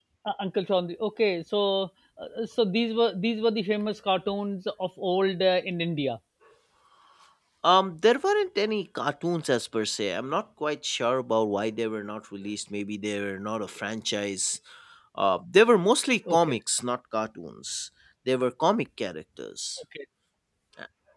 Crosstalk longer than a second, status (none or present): none